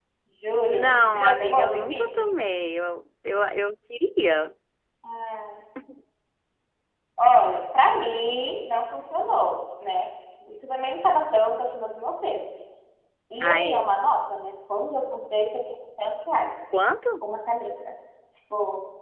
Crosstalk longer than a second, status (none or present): present